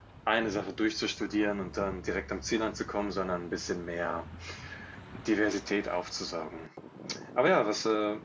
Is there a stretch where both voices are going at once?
No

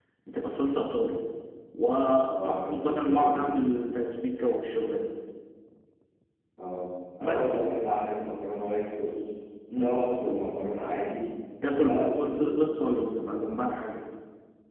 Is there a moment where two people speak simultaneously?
Yes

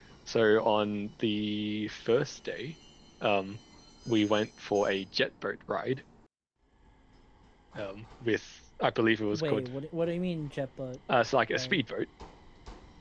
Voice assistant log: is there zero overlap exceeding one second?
Yes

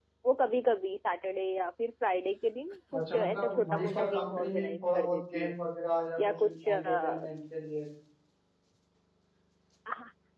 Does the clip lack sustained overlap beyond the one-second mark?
No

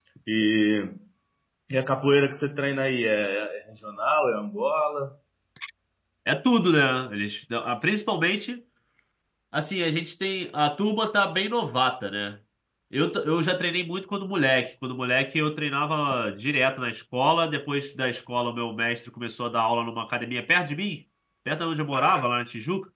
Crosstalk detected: No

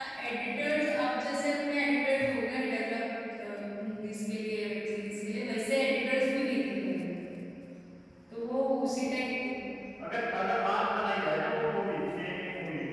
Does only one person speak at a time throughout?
Yes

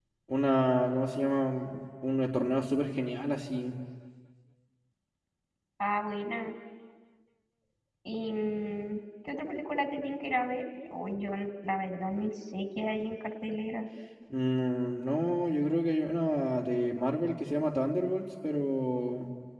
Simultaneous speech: No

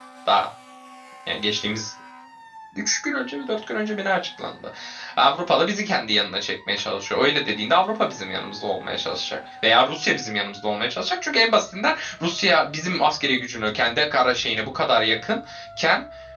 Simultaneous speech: No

